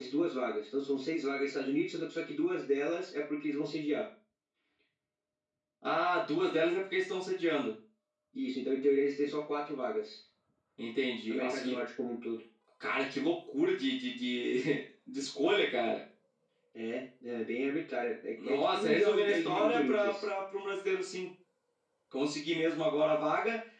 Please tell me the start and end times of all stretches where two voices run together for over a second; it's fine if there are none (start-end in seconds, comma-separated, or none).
18.4-20.3